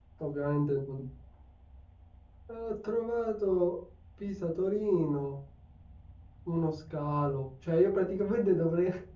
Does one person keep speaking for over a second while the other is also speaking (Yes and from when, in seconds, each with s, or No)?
No